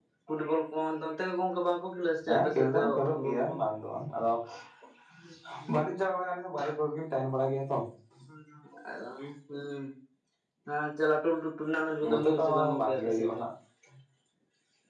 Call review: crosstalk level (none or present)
present